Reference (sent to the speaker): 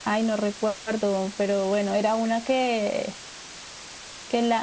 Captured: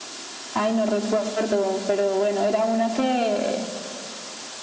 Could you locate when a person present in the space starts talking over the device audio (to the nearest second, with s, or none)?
none